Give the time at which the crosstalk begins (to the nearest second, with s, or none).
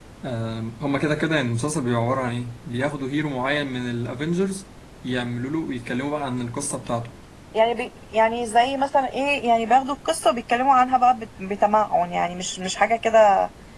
none